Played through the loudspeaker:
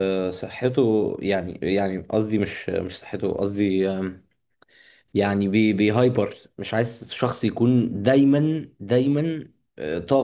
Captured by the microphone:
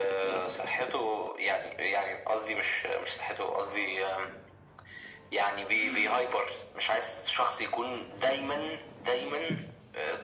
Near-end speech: none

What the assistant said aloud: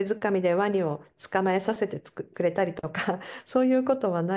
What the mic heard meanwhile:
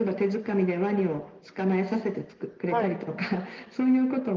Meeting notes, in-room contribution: present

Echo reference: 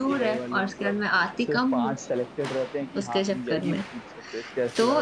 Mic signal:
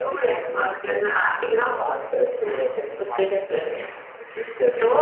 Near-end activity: none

